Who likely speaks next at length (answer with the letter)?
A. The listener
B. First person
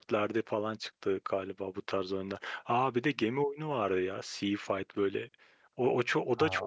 A